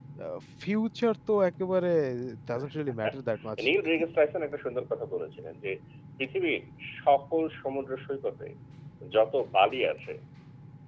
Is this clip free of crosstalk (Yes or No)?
Yes